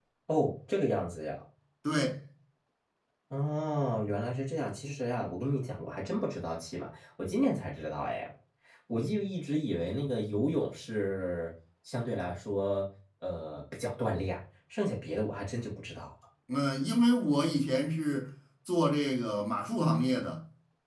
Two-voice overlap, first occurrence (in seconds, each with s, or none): none